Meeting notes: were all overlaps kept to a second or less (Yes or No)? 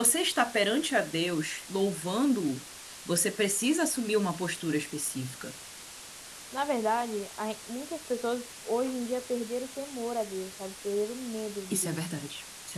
Yes